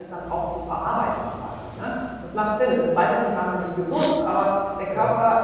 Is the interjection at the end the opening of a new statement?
No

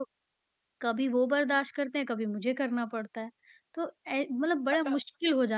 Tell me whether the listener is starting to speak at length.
No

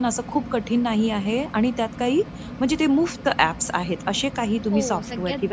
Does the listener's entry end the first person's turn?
Yes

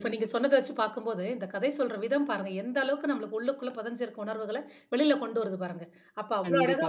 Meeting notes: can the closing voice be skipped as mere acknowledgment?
Yes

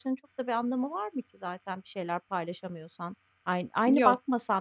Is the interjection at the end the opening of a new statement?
No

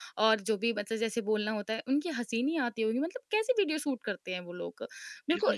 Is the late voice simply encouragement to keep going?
No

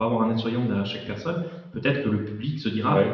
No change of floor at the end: Yes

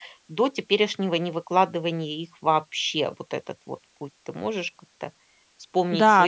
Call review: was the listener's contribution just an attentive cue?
No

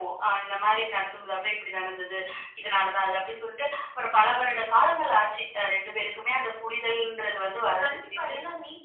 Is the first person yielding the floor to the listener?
Yes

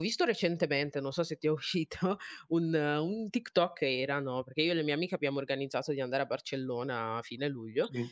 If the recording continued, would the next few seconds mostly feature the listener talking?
No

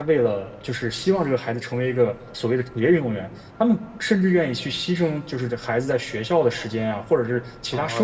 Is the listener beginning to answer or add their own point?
Yes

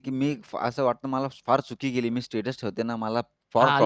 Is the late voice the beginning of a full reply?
Yes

